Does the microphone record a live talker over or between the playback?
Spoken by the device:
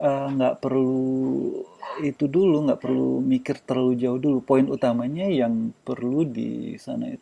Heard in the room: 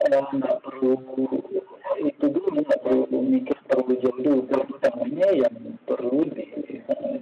No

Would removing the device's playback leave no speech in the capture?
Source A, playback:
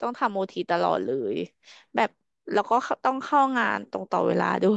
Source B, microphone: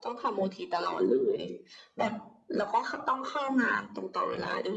Yes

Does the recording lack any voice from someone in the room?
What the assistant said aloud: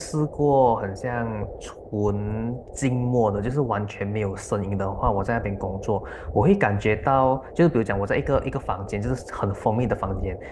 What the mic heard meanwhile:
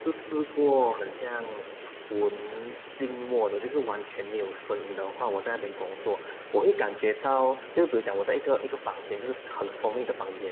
Yes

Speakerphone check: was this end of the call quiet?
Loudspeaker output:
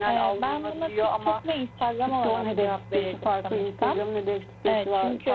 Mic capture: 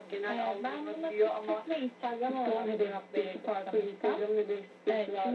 Yes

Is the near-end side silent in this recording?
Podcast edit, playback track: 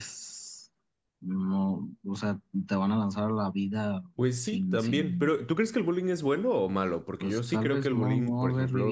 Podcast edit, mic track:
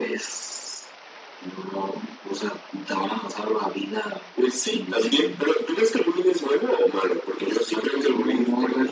Yes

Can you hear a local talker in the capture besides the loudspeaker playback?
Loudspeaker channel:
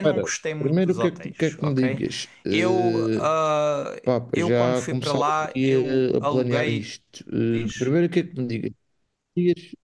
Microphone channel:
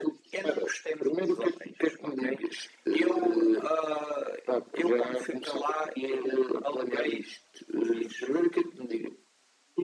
No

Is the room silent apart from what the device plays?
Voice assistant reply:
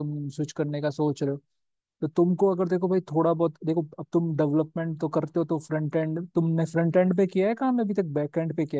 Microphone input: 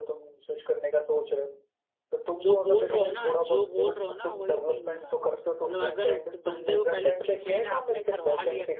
No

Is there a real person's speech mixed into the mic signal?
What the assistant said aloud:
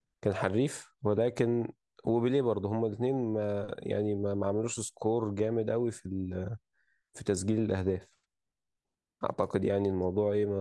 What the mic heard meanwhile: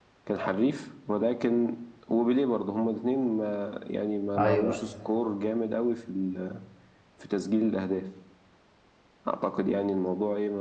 Yes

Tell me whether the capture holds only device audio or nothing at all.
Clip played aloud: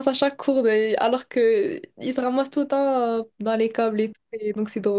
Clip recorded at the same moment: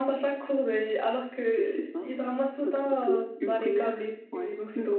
No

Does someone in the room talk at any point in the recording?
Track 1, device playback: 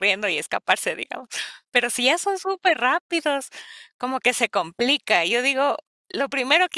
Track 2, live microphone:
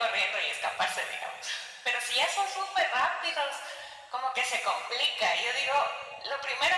No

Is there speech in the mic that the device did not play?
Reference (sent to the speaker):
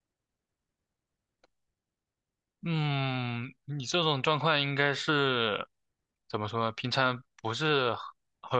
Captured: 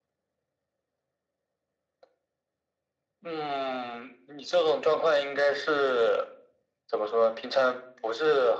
No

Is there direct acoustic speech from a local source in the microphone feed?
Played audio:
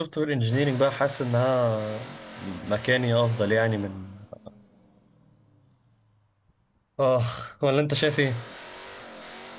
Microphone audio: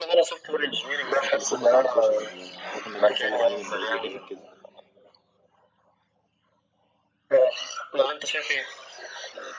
Yes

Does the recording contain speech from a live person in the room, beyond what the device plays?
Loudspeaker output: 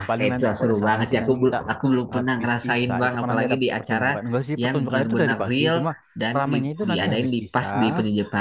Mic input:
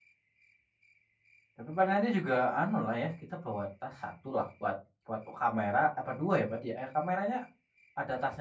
Yes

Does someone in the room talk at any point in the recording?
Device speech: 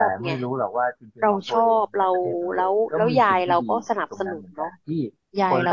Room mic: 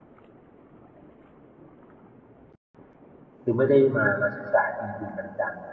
Yes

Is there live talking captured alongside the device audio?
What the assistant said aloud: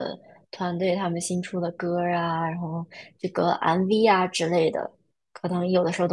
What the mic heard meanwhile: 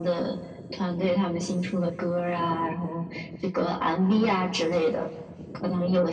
No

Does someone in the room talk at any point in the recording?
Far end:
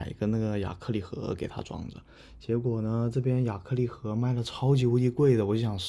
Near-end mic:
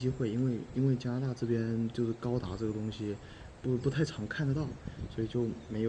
Yes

